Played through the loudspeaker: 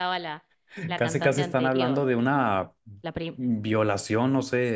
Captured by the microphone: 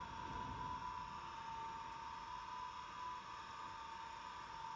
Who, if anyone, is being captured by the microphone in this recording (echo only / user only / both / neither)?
neither